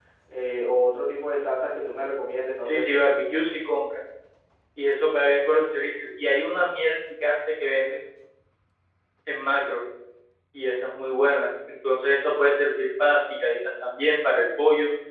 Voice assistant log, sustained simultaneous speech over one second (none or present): none